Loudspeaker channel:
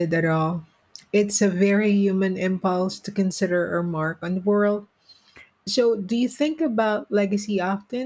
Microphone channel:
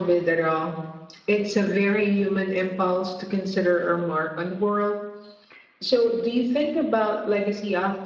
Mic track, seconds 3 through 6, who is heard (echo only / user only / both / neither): echo only